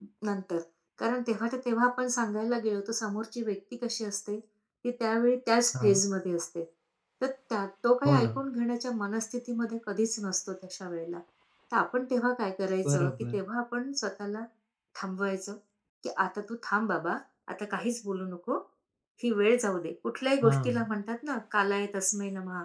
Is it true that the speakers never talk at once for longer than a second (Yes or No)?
Yes